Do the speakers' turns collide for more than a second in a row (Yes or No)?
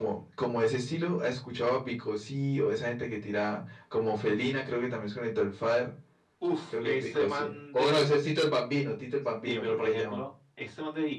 Yes